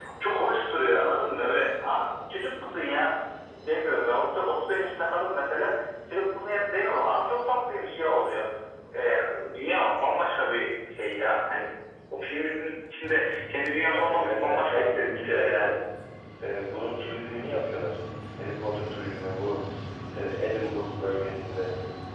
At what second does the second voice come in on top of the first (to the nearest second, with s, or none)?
14 s